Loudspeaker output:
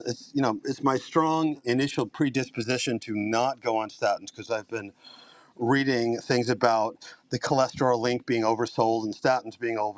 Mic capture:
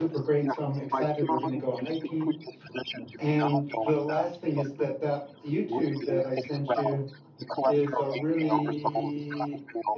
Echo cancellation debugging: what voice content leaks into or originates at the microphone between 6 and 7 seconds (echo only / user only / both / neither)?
both